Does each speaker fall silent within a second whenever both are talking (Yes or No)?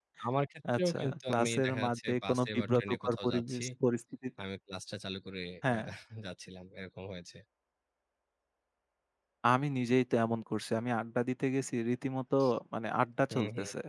No